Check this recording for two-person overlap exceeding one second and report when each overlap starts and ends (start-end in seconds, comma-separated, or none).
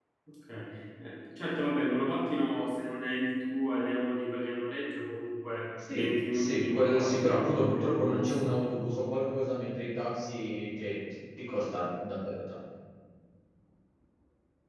5.9-8.6